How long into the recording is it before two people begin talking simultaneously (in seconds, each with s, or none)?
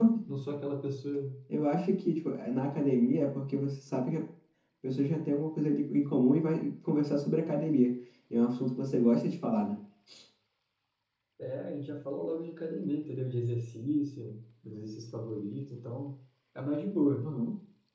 none